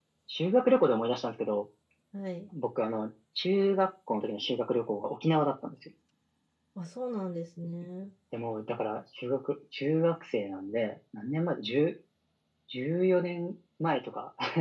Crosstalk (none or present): none